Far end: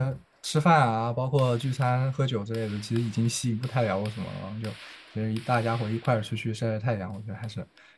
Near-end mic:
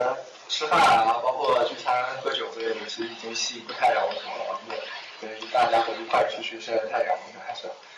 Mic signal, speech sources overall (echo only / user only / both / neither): echo only